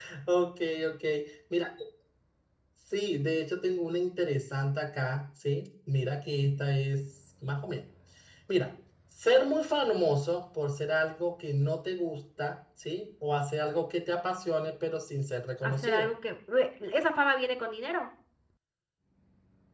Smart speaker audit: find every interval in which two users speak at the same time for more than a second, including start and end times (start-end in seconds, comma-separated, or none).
none